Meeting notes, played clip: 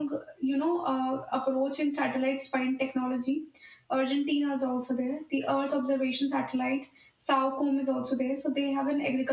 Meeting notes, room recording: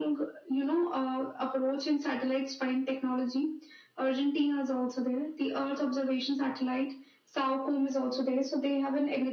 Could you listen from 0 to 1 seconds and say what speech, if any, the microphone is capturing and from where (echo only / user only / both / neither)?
echo only